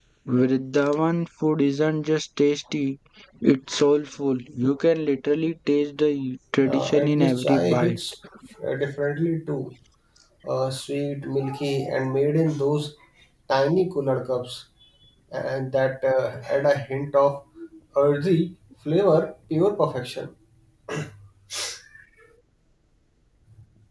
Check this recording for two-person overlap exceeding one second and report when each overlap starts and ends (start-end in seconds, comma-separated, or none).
6.6-8.0